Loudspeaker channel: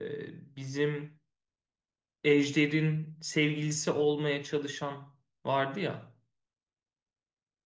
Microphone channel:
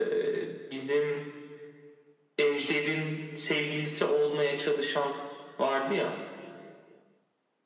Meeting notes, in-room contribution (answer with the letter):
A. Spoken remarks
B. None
B